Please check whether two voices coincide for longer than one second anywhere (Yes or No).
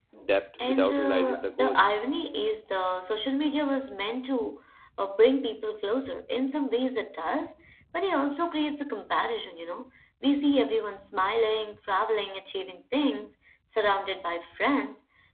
Yes